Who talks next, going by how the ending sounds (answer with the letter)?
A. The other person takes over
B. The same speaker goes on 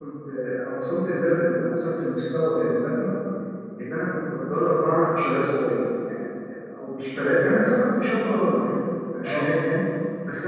B